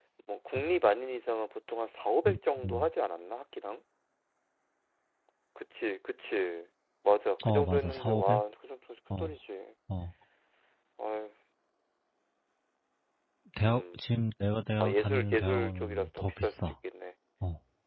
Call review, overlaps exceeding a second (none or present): present